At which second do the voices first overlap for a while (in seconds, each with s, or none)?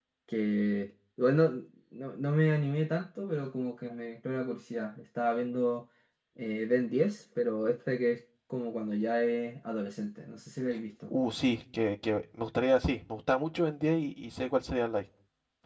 none